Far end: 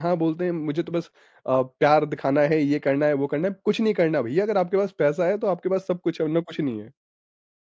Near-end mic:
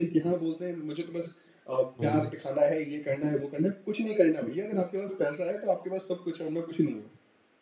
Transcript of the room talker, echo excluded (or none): हुँ,